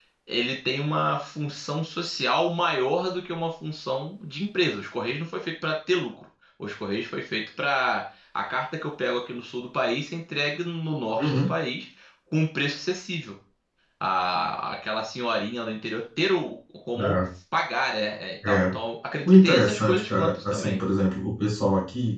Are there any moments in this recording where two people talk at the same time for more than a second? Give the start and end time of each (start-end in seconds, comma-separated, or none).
19.2-20.8